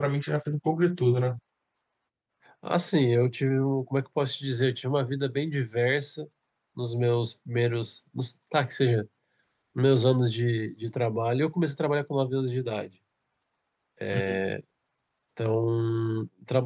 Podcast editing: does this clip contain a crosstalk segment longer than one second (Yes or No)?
No